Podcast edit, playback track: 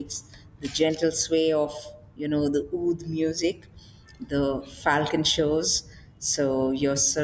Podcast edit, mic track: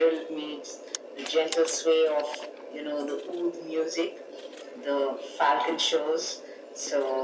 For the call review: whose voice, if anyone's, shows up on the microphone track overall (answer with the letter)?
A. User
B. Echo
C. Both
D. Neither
B